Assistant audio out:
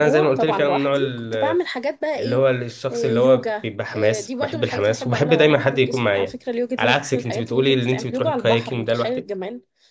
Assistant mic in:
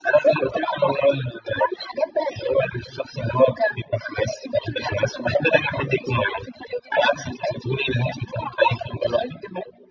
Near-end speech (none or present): none